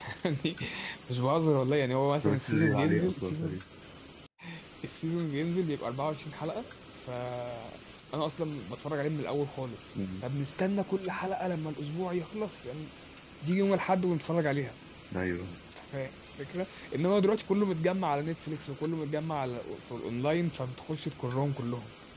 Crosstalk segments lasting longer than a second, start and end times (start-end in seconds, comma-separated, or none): 2.2-3.6